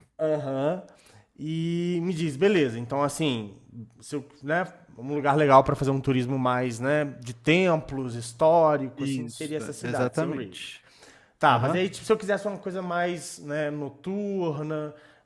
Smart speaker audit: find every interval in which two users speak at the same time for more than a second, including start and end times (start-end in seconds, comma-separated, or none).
9.0-10.4